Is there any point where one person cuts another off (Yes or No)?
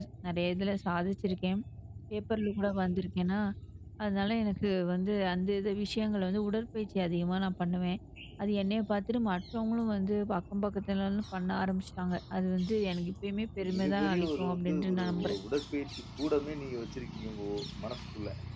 Yes